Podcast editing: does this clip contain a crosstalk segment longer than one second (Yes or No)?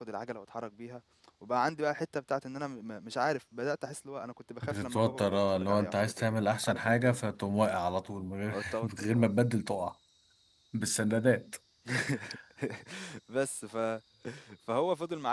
Yes